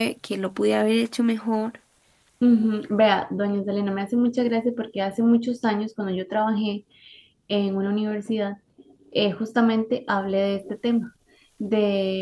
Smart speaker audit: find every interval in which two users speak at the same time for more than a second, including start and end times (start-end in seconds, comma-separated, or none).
none